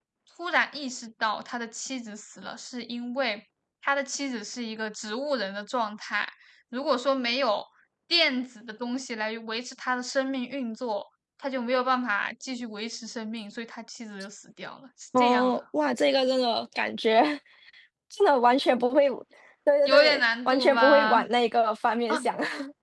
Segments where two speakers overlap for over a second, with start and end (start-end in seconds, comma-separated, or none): 19.8-21.2